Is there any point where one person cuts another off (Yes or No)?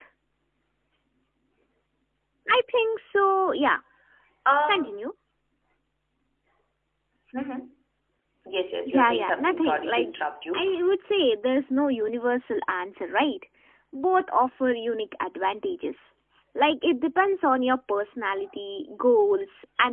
Yes